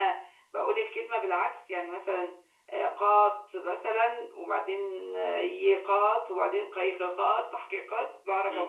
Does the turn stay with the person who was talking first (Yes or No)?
No